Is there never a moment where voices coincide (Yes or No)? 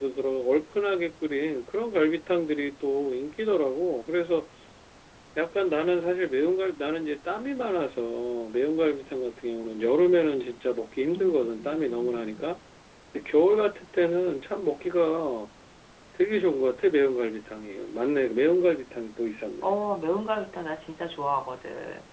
No